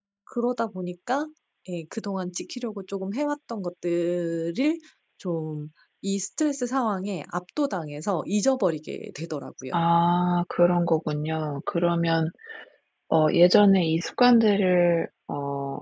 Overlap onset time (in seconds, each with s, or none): none